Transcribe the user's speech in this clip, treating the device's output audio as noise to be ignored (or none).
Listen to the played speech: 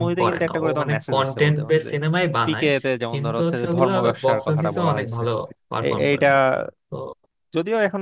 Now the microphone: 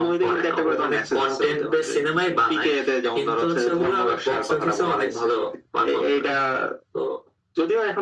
none